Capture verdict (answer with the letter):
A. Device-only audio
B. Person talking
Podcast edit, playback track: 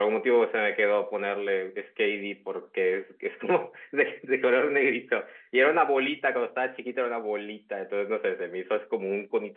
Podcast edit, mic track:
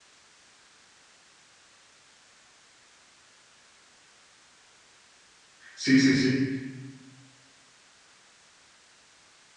B